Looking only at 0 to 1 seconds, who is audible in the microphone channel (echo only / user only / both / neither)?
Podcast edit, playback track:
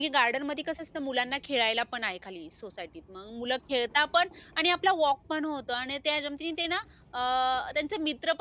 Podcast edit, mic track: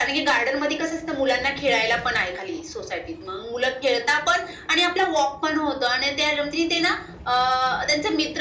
echo only